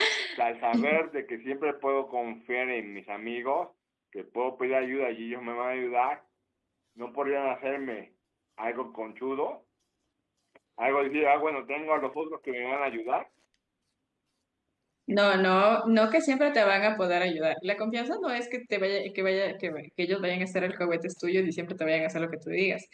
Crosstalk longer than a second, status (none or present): none